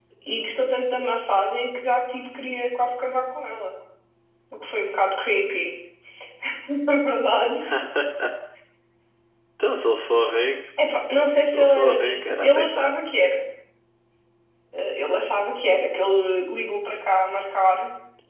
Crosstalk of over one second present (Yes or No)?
Yes